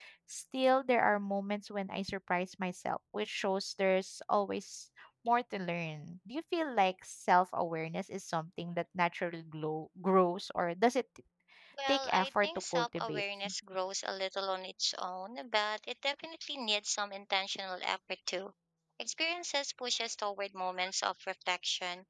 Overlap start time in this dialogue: 12 s

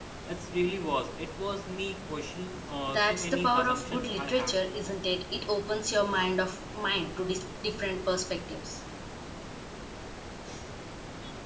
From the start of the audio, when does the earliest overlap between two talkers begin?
3 s

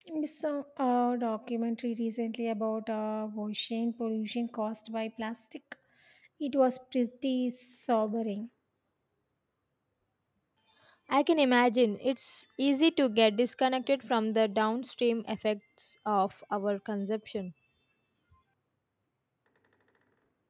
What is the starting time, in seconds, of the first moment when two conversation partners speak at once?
none

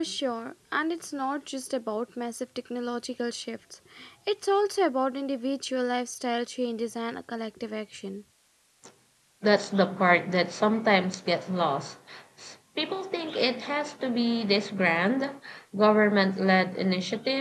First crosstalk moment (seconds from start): none

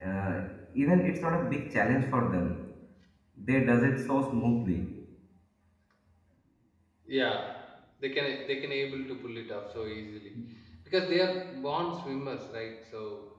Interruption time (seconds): none

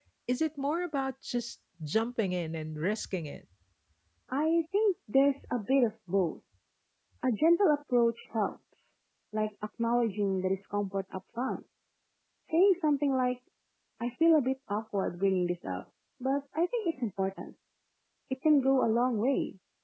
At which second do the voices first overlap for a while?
none

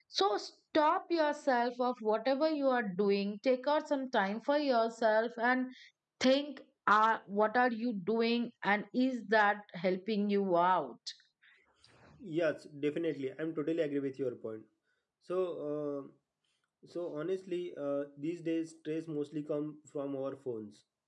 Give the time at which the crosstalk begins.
none

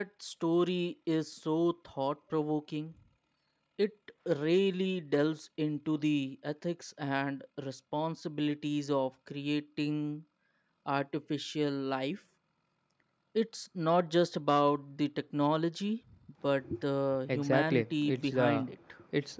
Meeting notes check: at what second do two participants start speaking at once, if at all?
17 s

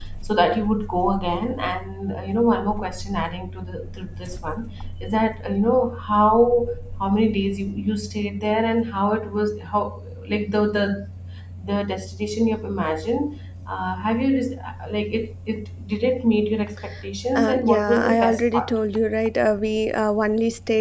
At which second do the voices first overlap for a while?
17 s

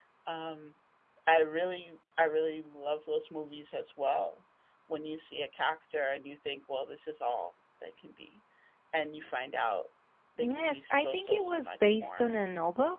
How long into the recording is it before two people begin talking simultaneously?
10 s

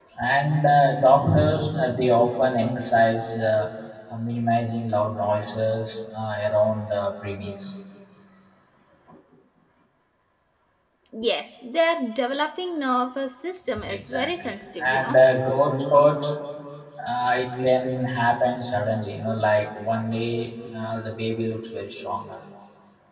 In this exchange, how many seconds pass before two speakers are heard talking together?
14 s

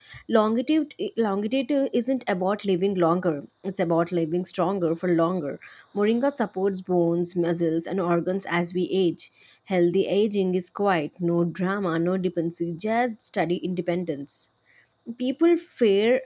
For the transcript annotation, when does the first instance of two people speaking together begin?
none

